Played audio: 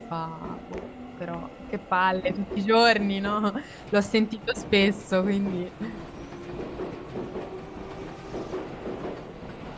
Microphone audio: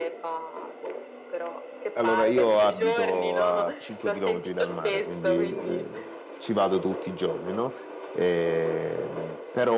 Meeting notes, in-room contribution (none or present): present